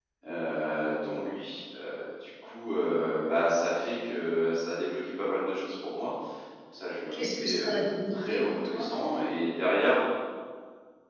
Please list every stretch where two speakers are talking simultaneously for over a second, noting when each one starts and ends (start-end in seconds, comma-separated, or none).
7.1-8.9